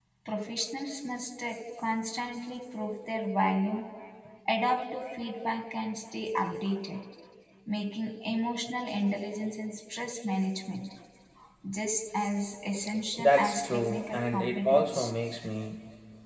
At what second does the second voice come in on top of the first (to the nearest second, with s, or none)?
13 s